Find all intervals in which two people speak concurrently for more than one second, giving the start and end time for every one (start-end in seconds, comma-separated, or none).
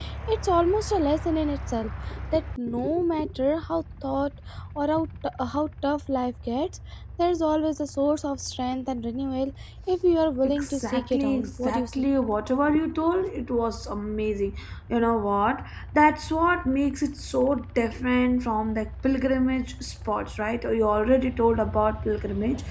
10.5-11.9